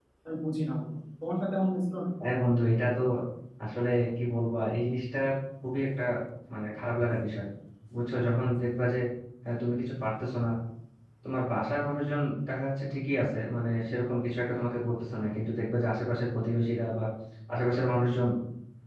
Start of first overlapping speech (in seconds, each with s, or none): none